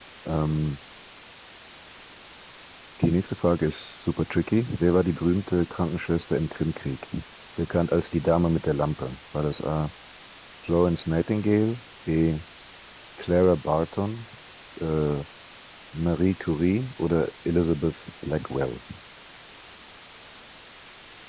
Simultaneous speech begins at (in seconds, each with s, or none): none